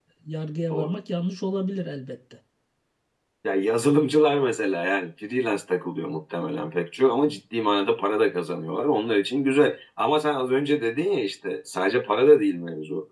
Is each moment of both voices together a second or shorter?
Yes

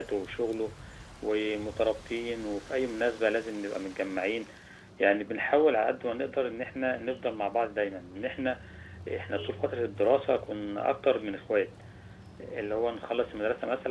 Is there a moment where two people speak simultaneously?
No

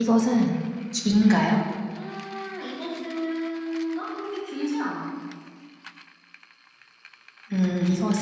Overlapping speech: No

